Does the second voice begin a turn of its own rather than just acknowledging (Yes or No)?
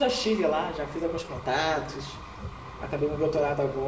No